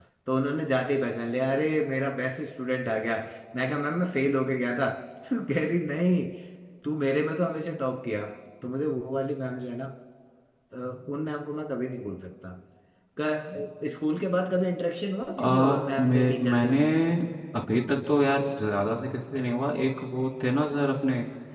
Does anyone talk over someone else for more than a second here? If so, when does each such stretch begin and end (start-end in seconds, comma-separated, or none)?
15.4-16.8